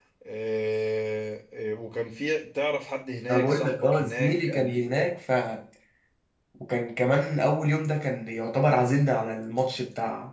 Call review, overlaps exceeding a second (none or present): present